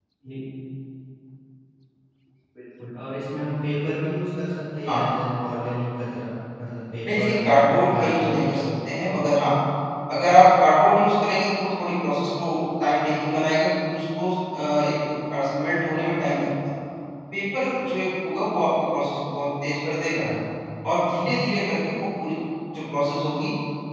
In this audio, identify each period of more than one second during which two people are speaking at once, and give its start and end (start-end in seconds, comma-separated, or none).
7.1-8.5